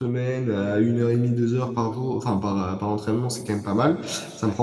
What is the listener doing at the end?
listening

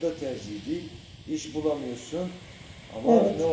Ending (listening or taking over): listening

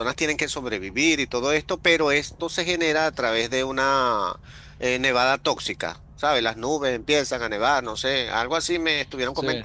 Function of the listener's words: listening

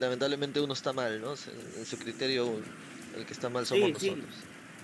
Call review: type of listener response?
taking over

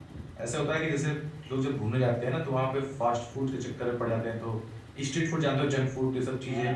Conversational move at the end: taking over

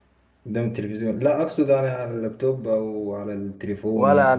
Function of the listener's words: taking over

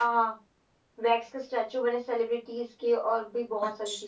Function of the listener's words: taking over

